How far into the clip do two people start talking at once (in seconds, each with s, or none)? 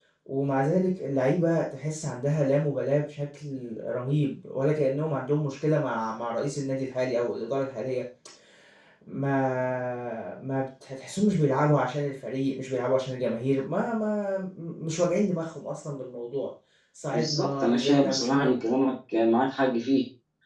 17.1 s